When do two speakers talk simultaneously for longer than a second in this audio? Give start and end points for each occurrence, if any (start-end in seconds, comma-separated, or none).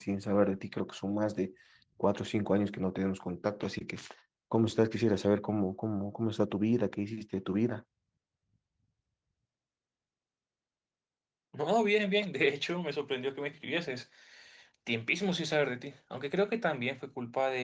none